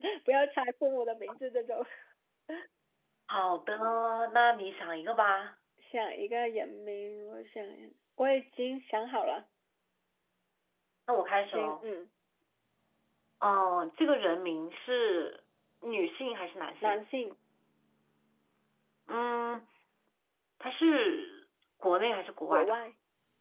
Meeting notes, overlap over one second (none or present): none